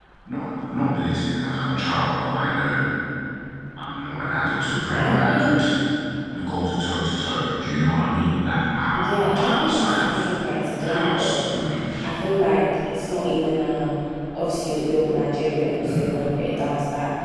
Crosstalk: present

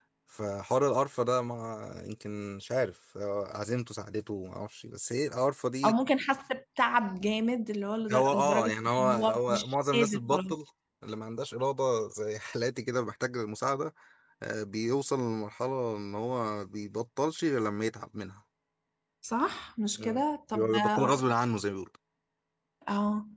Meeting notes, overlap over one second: present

